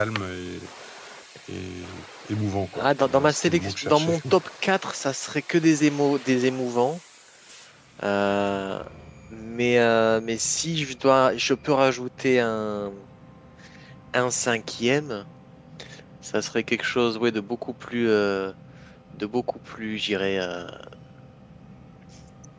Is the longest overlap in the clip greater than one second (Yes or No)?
Yes